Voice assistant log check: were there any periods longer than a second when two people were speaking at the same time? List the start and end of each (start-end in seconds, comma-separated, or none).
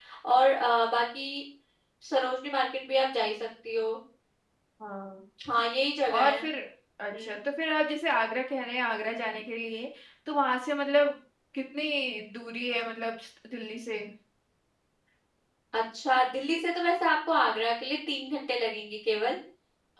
none